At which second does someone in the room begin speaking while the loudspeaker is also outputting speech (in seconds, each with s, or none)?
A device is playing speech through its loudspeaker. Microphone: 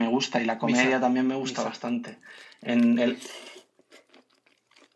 0.7 s